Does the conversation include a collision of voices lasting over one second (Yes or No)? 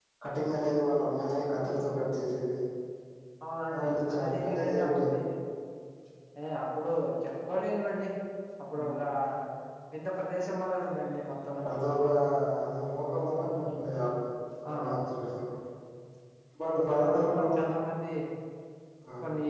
Yes